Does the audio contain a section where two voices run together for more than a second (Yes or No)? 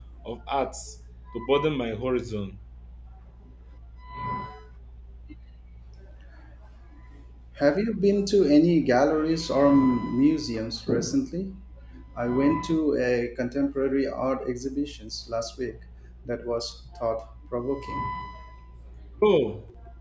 No